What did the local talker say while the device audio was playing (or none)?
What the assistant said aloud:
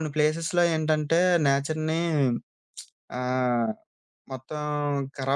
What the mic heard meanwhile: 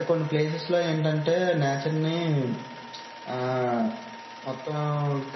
none